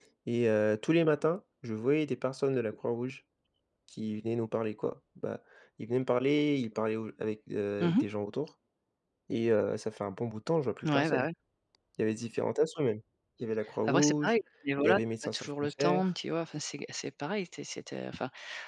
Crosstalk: present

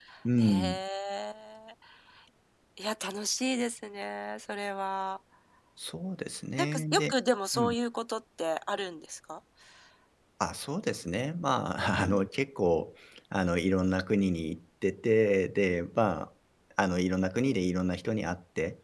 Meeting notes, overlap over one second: none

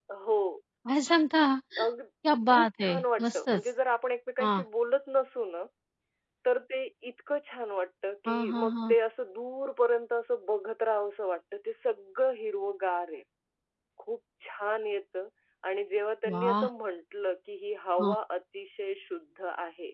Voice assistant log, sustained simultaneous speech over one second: present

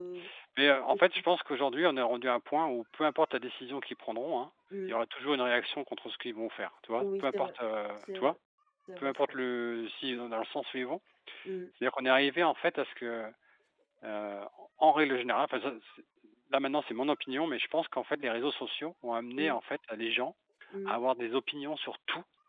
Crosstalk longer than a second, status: none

